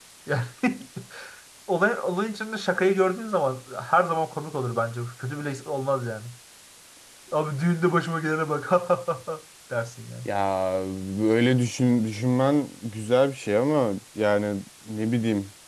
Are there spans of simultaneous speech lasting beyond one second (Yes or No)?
No